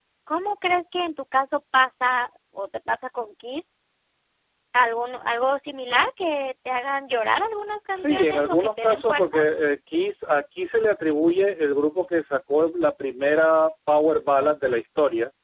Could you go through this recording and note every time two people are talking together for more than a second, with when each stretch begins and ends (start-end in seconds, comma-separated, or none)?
7.9-9.3